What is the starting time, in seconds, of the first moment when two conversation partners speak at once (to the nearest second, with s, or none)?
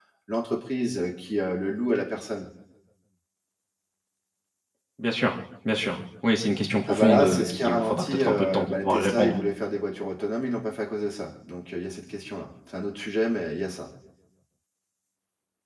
7 s